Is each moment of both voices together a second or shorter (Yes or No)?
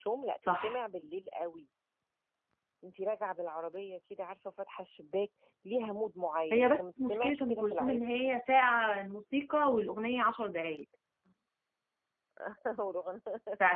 No